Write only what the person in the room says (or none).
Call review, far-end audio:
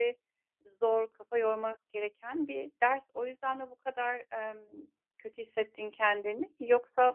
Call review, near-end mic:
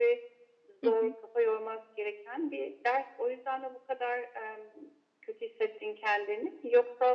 Hı hı.